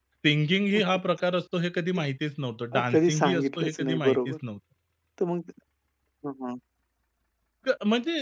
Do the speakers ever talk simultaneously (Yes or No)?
Yes